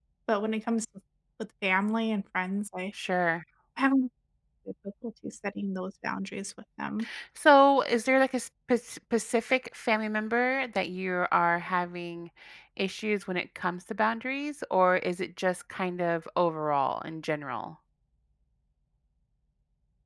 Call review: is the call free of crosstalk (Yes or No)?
Yes